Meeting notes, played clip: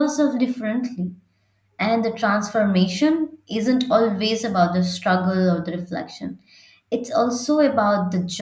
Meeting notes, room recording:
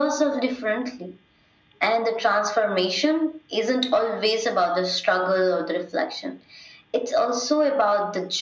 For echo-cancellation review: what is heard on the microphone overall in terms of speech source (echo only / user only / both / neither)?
echo only